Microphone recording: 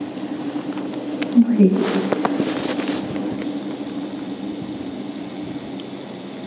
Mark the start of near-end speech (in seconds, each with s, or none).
1.4 s